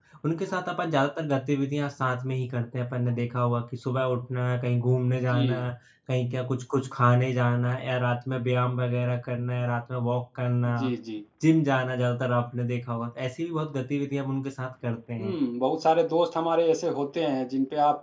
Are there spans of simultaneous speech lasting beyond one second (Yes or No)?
No